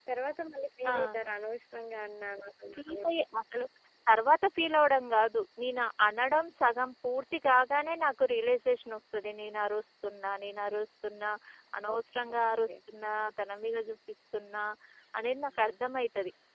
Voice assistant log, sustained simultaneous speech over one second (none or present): none